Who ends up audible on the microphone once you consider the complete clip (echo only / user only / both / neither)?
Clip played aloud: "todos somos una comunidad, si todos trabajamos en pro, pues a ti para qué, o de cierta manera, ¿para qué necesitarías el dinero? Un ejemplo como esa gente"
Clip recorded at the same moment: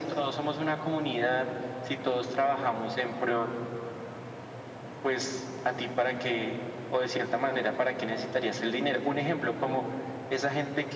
echo only